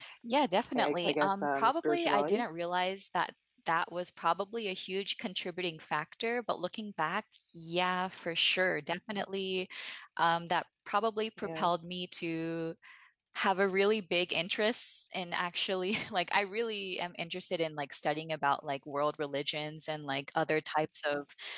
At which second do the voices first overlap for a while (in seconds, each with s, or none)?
0.8 s